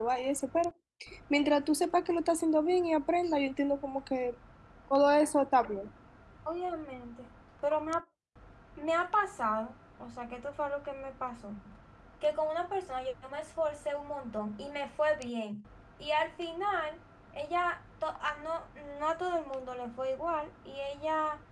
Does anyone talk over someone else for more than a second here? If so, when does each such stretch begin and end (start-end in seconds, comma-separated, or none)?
none